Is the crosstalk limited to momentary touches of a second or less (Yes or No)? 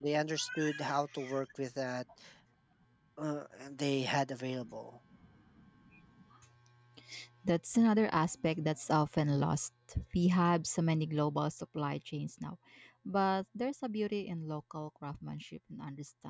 Yes